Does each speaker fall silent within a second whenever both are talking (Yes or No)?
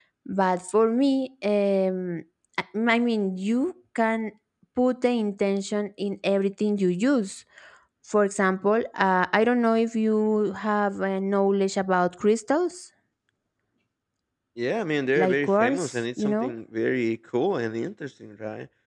No